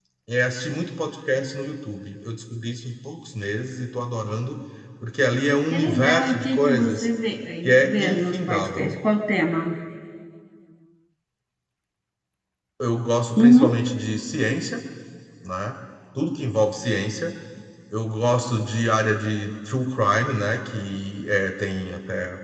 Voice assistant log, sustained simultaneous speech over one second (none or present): present